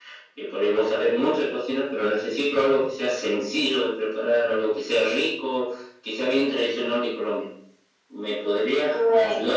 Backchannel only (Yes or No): No